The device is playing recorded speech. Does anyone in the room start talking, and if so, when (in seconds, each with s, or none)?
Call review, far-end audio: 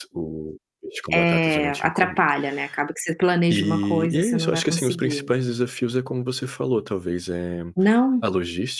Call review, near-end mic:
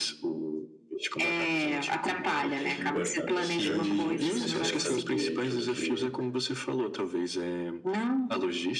2.2 s